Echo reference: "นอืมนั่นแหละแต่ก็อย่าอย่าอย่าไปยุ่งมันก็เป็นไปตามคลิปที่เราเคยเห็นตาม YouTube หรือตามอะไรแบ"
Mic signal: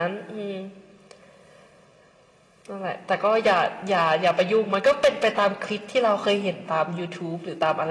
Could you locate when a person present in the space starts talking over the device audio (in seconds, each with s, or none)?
none